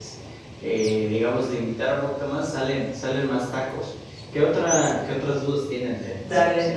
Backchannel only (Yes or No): No